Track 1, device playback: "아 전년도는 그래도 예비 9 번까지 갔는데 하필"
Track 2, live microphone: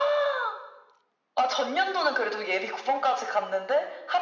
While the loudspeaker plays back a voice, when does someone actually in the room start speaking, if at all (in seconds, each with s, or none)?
none